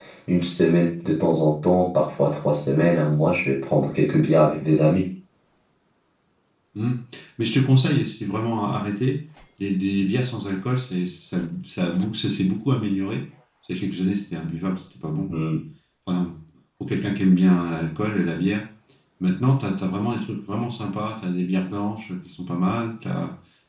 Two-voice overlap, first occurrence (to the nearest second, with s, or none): none